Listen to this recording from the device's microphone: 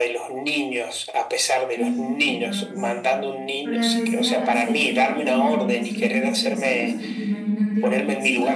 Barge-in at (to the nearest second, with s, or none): 2 s